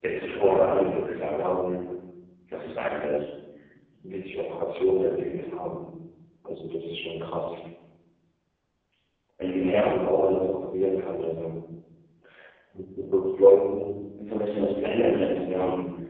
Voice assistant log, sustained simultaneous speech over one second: present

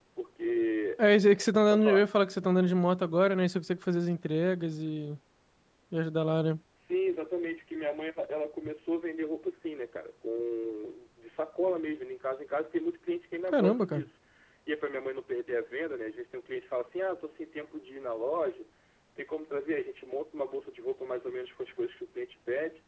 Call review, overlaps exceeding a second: none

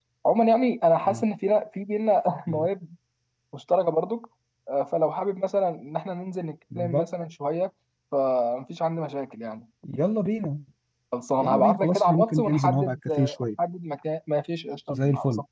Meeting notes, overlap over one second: present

